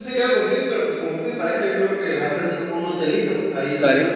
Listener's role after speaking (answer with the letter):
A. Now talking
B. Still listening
B